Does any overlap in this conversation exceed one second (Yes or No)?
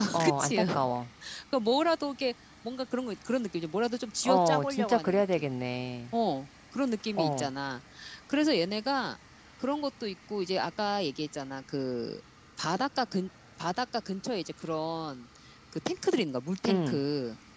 Yes